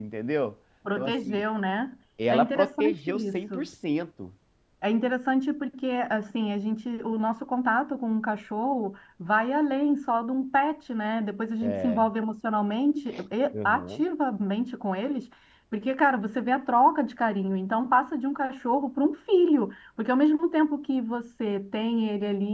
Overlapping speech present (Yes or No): Yes